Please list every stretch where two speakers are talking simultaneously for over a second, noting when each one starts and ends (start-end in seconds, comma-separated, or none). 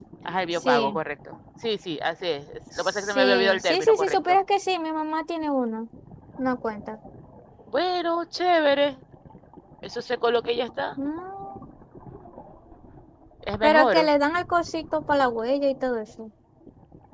2.8-4.4